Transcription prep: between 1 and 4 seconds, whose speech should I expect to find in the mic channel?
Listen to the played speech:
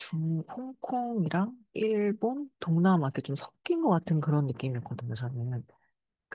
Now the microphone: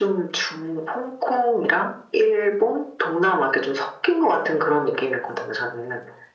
echo only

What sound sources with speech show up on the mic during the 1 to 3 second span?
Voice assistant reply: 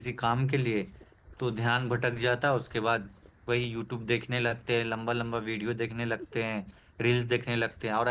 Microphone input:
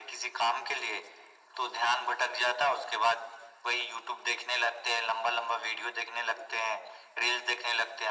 echo only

